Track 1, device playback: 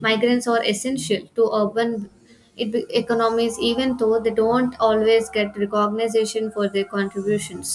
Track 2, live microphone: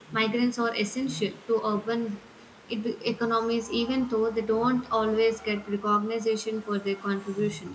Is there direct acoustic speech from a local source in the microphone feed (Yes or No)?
No